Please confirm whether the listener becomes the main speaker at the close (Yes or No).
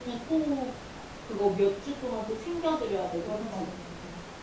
Yes